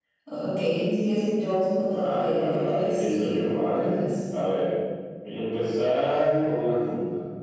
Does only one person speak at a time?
No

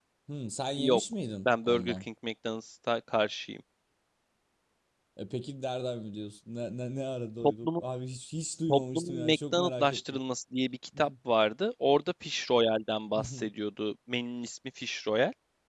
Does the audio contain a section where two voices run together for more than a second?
Yes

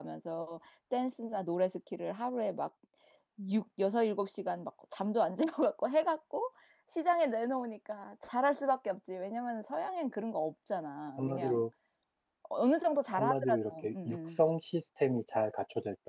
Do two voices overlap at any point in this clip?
Yes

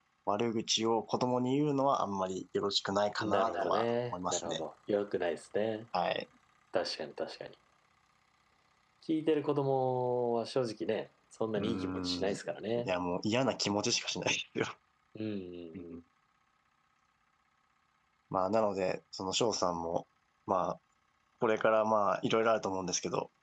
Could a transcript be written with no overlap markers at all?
No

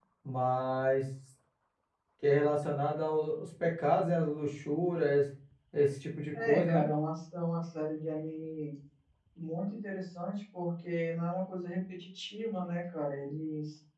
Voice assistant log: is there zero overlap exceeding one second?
Yes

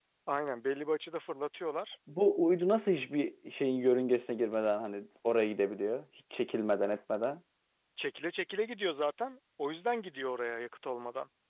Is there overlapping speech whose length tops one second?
No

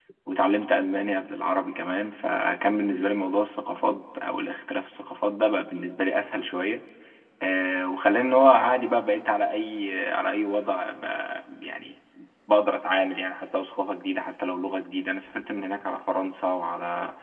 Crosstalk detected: No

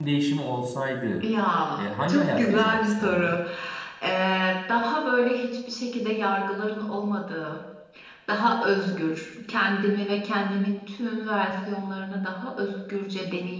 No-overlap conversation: No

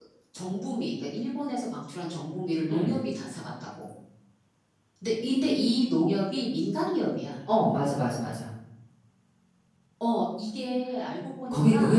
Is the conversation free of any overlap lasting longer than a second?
Yes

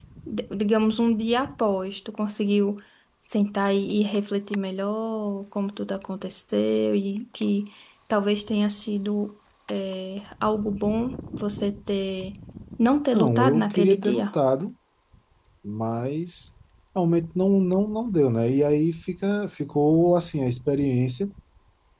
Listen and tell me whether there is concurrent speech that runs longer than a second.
Yes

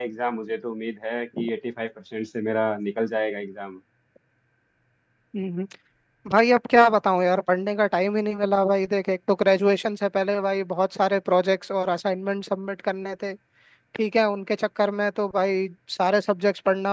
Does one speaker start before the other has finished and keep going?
No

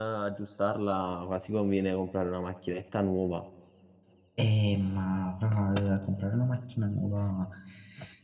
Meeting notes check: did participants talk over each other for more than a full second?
No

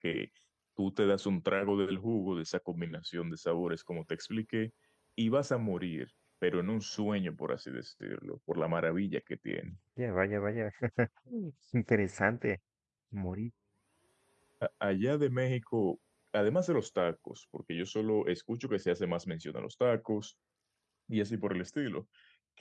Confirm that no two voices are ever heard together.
Yes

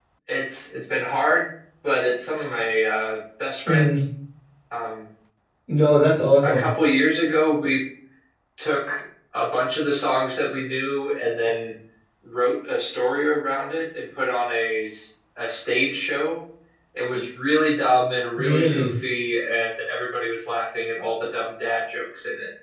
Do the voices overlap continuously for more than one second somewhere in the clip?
No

